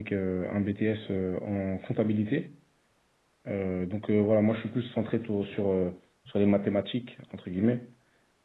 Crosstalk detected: No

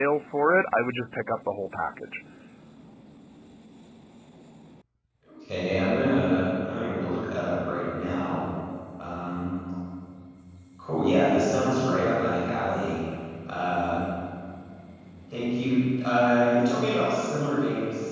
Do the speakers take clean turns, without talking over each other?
Yes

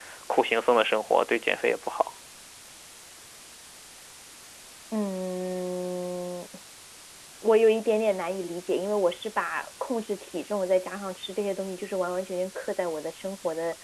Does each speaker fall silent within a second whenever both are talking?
Yes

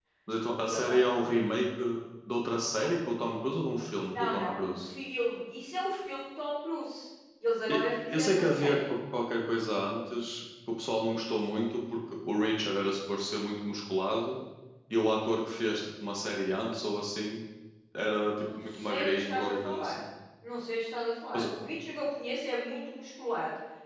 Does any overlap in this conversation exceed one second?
Yes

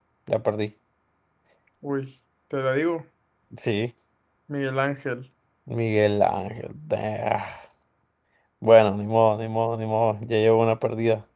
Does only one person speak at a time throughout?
Yes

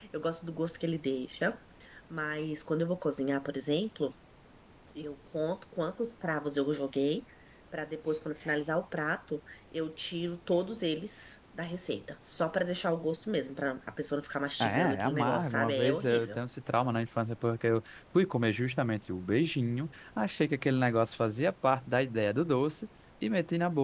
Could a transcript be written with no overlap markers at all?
No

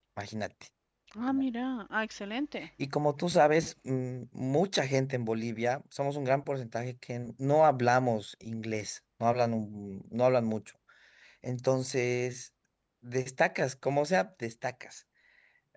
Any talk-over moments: No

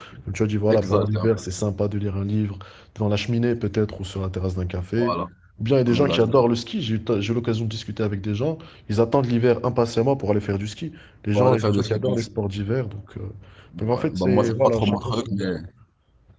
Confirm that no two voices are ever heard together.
No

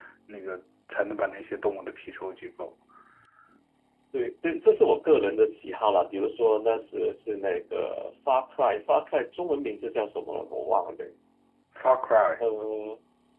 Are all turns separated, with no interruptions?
Yes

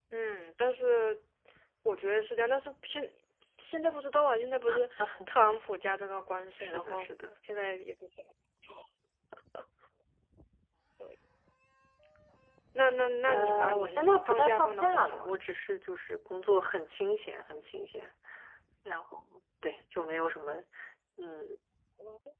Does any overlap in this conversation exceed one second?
Yes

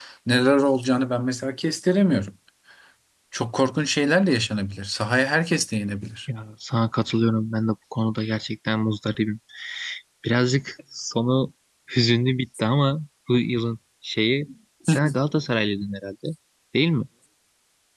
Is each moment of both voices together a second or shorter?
Yes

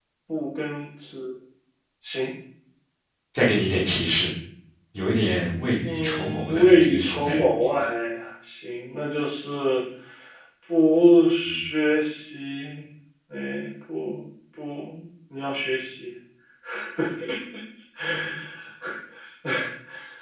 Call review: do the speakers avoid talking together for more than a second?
No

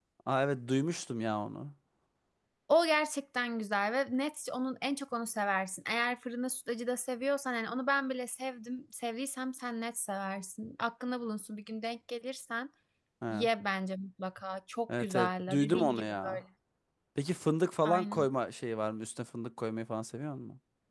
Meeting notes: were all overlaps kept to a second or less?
No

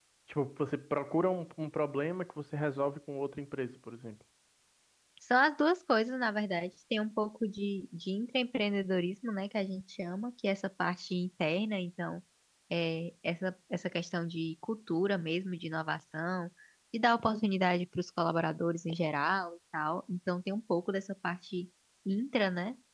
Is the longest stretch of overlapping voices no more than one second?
Yes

